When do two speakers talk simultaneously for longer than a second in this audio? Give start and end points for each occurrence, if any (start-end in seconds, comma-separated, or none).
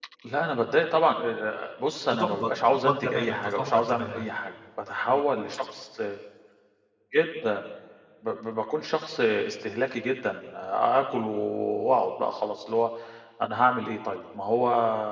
2.1-4.2